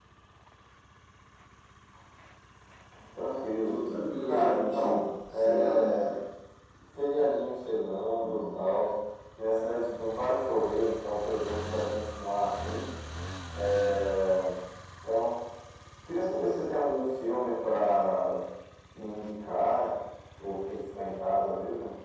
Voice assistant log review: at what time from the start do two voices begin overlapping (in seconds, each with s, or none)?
4.2 s